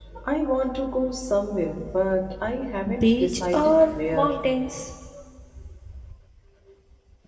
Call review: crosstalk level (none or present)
present